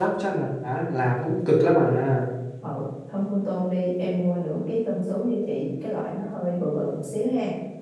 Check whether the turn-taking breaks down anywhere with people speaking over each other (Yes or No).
No